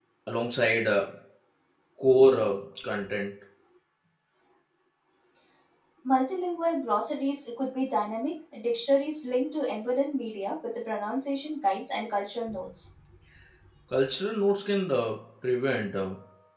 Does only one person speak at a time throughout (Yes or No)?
Yes